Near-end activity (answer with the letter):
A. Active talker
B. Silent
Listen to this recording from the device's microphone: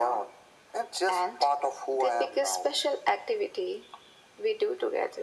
B